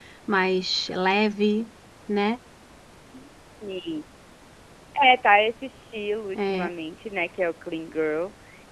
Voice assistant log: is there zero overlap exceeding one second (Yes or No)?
Yes